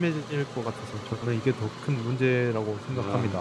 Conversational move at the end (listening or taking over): taking over